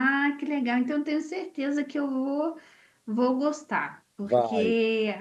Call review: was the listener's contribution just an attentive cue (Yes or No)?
Yes